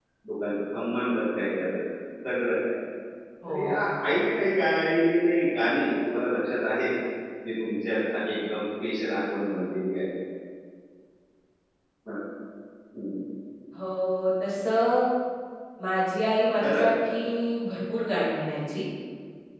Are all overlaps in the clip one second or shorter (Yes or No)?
Yes